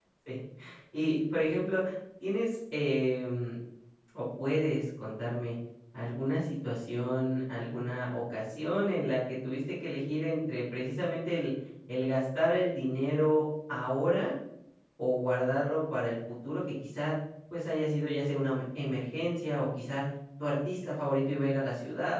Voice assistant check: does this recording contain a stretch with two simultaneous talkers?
No

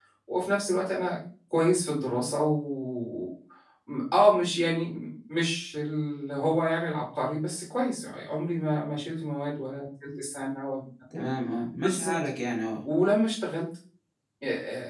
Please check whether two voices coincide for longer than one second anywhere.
No

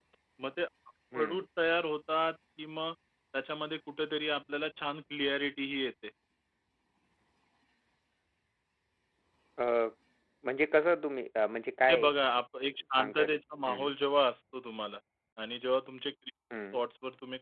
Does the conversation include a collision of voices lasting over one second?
No

